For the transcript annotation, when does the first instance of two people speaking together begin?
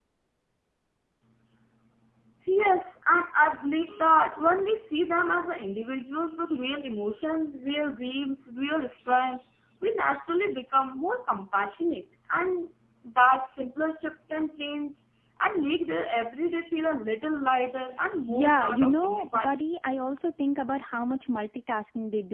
18.3 s

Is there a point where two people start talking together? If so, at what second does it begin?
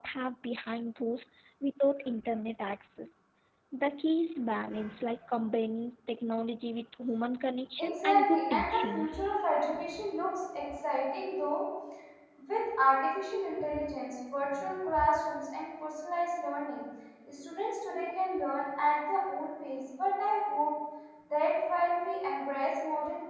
7.8 s

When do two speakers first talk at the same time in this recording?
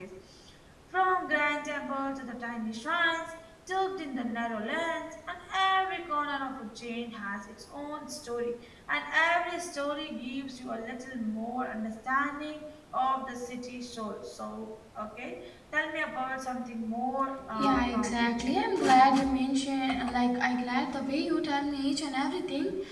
17.4 s

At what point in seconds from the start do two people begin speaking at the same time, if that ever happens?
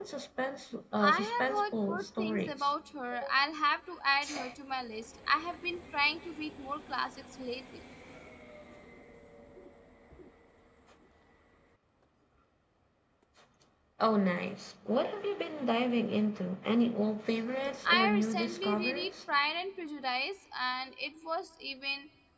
1.0 s

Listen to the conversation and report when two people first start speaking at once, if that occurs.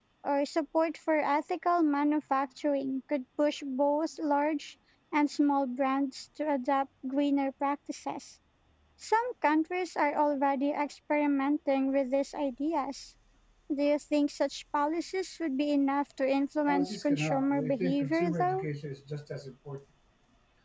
16.7 s

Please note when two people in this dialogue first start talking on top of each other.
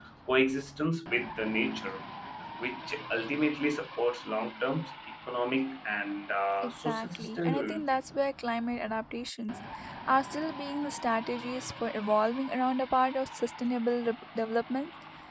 6.6 s

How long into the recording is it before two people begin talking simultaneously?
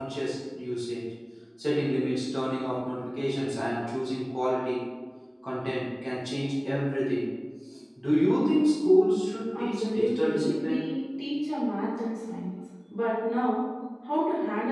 9.5 s

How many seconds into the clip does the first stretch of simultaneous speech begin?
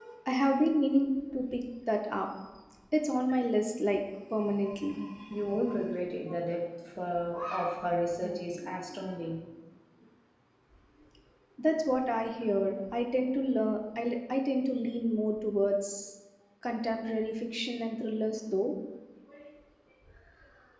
none

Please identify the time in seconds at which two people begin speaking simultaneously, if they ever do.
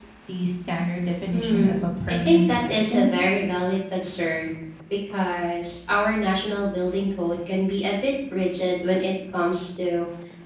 1.3 s

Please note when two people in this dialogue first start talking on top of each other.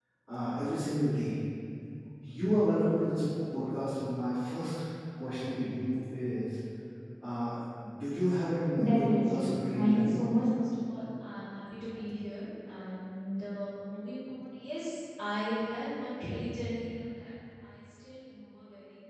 8.6 s

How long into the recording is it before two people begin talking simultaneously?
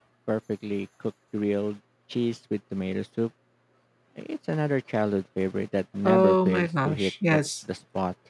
6.0 s

